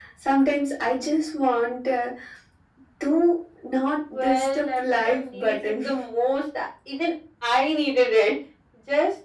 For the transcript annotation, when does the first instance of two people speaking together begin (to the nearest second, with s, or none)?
4 s